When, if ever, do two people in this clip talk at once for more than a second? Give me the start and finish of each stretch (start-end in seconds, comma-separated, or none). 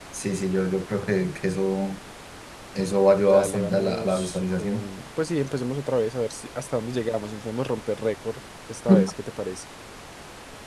3.2-4.9